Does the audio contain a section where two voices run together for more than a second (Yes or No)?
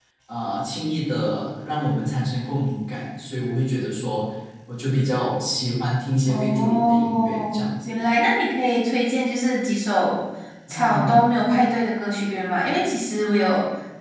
Yes